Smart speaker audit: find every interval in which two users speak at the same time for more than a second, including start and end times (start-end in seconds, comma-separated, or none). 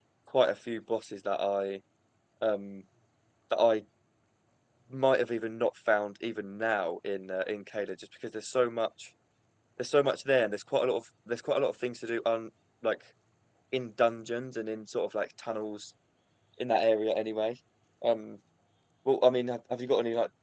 none